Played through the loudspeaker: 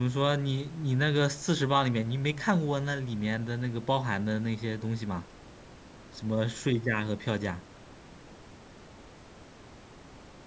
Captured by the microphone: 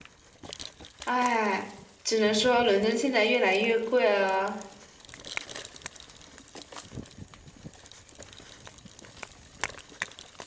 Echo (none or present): none